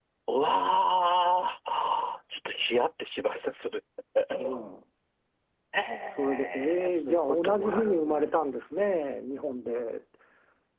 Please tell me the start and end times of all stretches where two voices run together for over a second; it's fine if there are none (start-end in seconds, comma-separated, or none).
6.2-8.3